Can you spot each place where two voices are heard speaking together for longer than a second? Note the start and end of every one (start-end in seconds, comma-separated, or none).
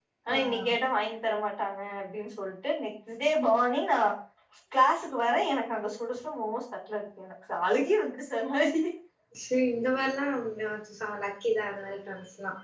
none